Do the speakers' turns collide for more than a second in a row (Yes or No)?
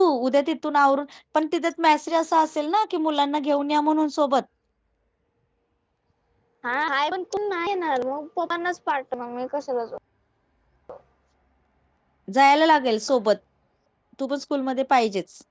No